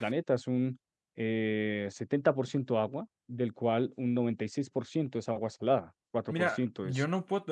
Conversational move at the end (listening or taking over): taking over